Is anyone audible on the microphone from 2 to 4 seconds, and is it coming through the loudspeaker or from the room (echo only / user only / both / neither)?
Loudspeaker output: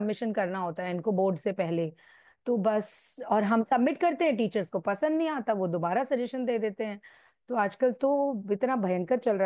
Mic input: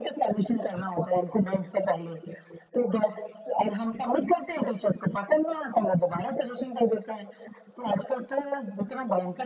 echo only